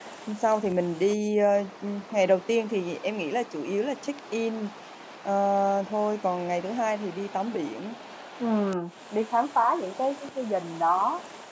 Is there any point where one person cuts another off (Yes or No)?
No